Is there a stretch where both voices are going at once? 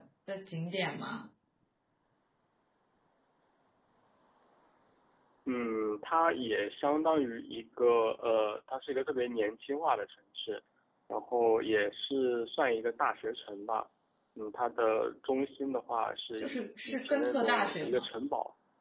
Yes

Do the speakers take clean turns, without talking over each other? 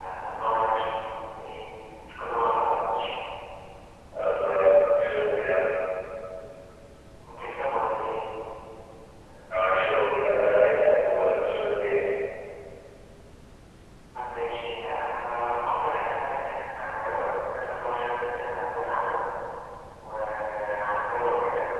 Yes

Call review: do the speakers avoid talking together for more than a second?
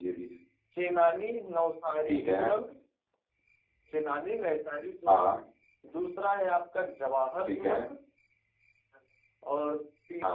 Yes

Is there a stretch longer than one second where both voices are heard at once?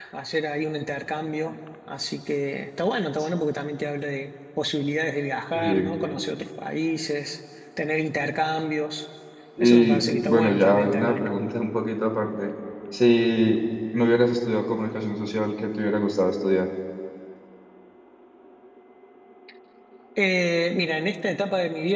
Yes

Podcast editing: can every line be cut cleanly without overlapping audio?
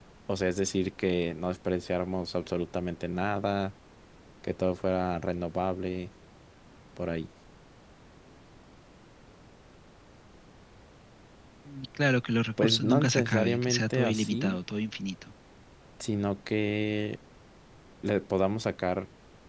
No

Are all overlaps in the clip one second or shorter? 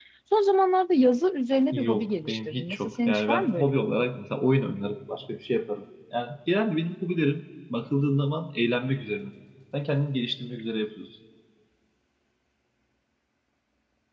No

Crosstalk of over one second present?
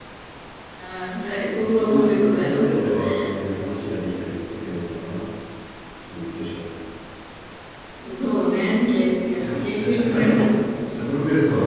Yes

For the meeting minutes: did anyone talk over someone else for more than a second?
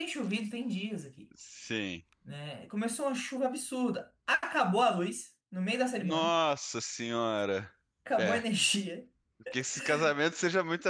No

